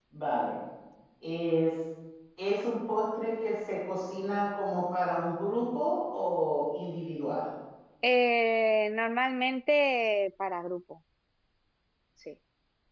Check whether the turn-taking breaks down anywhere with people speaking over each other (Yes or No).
No